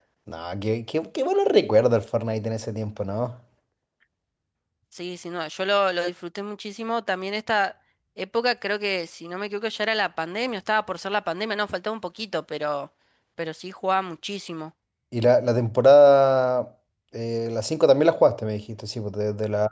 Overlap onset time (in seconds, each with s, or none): none